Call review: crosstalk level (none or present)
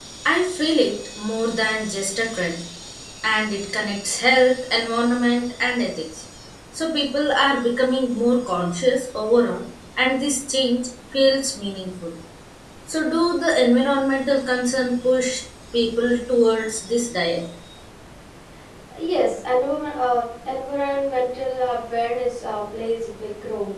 none